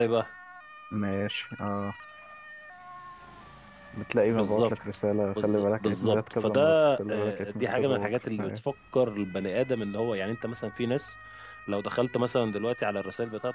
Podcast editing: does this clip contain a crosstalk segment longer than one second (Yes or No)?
Yes